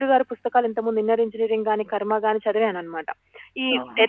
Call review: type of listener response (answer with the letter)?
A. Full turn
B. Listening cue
B